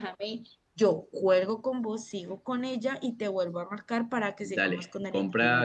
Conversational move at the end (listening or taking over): taking over